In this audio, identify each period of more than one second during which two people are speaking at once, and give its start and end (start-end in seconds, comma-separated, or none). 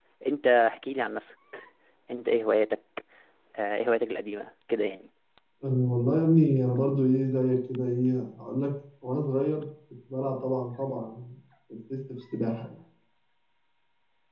none